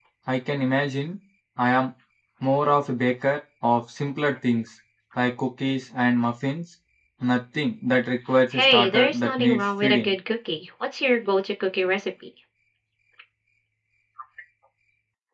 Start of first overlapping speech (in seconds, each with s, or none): 8.5 s